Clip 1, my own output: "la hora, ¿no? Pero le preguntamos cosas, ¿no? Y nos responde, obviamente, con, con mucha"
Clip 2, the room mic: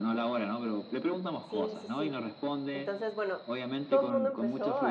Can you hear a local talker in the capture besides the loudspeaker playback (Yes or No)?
Yes